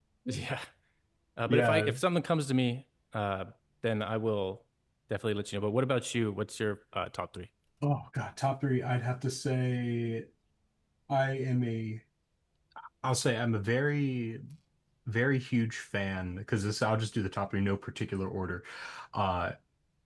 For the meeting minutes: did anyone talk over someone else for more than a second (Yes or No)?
No